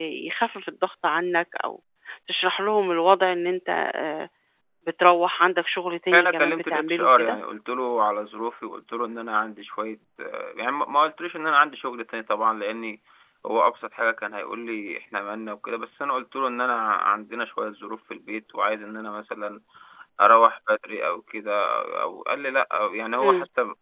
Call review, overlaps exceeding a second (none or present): present